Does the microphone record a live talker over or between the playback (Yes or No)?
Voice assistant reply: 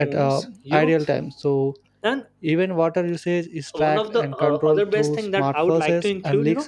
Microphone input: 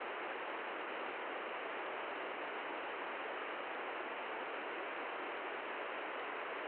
No